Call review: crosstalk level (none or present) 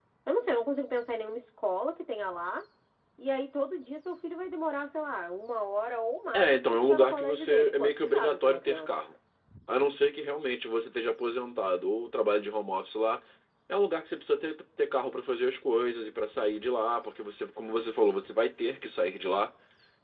present